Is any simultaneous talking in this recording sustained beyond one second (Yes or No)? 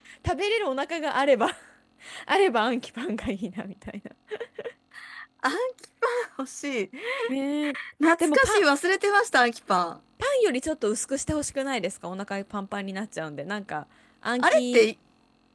No